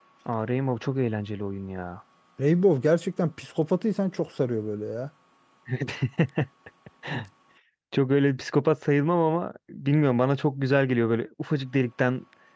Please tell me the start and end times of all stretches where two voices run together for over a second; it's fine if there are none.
none

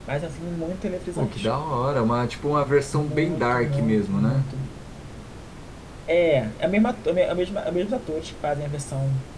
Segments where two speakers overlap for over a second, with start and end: 2.9-4.5

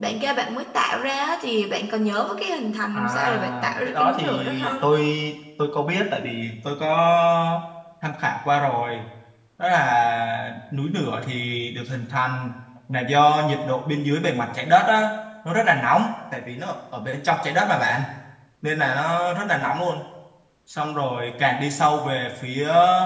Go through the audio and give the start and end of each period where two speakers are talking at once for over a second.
3.0-4.9

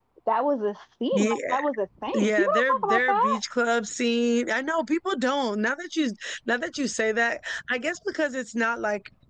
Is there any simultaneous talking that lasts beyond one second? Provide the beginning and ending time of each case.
2.2-3.4

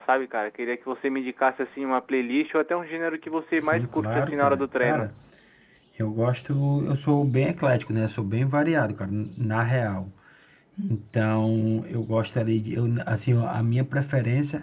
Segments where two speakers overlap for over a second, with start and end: 3.6-5.1

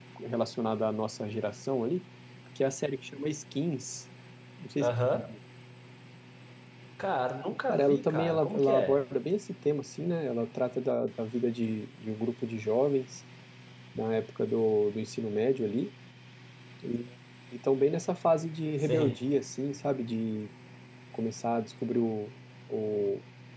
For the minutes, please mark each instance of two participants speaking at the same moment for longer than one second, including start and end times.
7.7-9.0

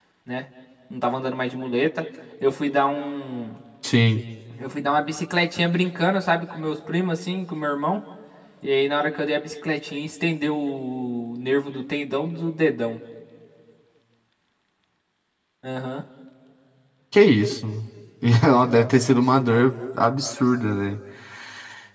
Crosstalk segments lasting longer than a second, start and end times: none

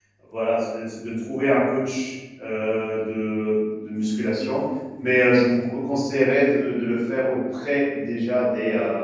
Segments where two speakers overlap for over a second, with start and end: none

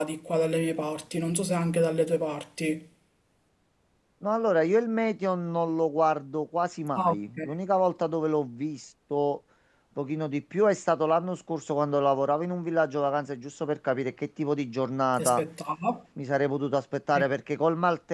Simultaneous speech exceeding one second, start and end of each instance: none

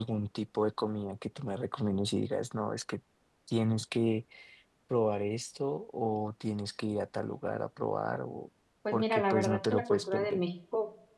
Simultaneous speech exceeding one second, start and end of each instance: 8.9-10.4

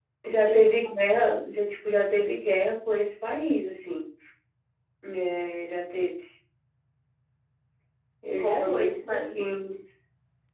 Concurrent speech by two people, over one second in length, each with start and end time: 8.4-9.7

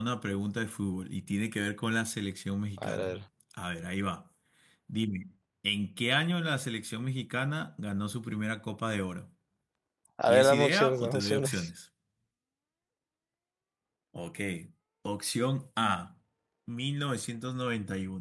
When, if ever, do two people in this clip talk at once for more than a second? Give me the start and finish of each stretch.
10.3-11.7

